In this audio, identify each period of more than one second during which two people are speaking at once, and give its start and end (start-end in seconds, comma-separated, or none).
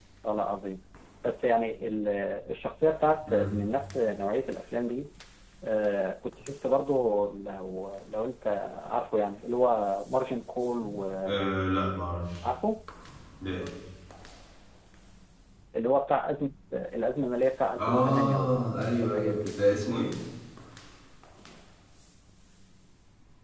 17.8-19.6